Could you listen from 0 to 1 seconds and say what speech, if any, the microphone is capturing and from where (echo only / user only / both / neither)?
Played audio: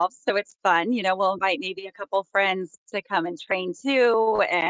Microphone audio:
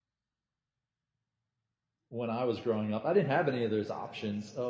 neither